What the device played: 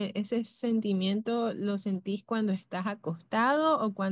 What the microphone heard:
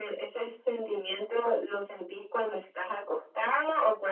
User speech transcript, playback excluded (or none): none